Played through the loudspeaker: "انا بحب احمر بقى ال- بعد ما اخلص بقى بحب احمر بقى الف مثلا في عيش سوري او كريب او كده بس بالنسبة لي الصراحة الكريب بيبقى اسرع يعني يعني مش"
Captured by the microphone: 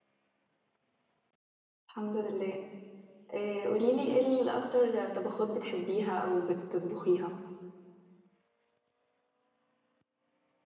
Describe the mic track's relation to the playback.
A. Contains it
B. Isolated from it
B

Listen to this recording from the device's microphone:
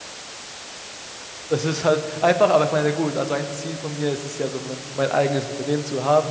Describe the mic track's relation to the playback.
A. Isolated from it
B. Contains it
A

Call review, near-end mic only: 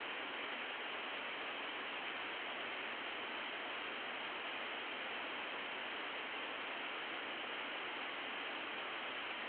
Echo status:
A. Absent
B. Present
A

